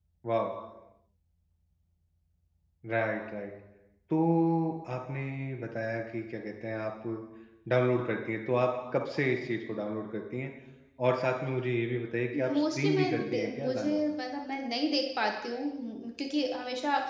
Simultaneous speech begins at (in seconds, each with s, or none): 12.3 s